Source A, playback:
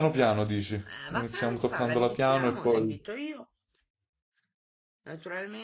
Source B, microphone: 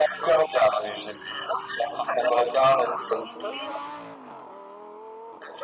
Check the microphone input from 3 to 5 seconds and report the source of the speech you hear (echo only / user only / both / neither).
echo only